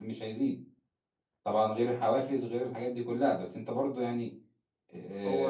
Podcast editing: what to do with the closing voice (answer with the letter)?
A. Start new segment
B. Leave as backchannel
A